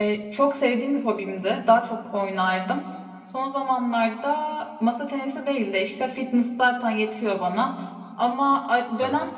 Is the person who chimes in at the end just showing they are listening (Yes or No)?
Yes